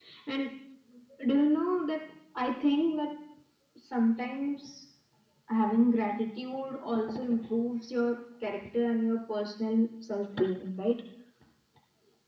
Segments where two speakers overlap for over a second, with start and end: none

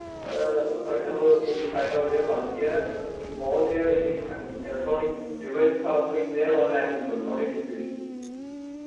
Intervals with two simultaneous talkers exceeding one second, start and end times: none

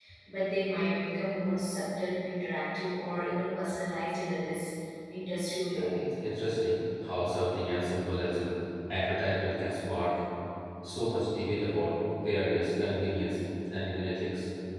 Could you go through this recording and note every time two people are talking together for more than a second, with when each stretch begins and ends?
none

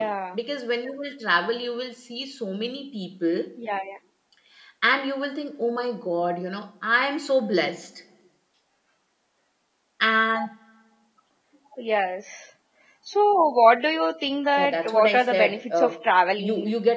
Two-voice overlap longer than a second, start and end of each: 14.6-15.9

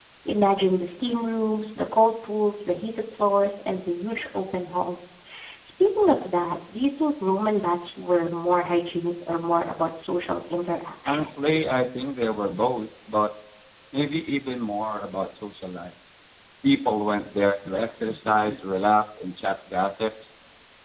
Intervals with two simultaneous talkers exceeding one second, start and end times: none

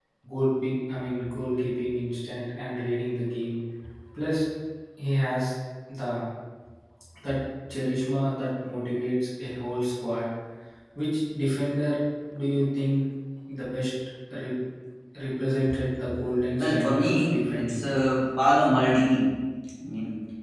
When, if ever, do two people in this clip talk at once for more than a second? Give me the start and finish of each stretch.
16.6-17.8

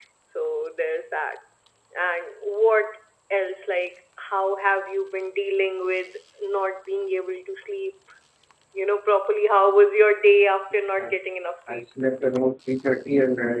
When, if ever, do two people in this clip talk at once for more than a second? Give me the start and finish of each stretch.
none

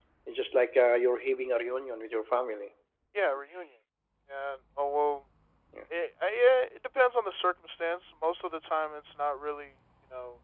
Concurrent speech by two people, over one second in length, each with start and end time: none

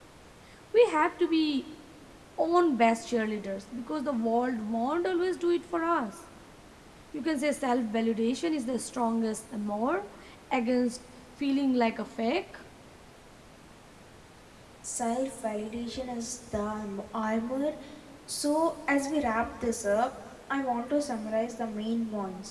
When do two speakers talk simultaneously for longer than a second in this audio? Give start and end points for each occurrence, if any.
none

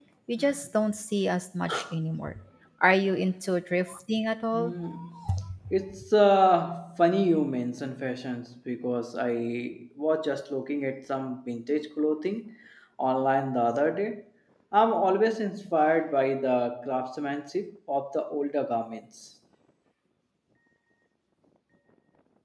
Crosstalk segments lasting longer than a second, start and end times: none

